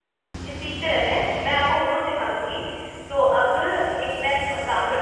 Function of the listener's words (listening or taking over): listening